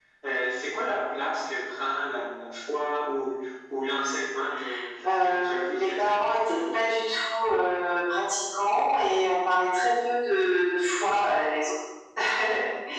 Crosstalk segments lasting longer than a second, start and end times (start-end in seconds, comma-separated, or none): 5.1-6.8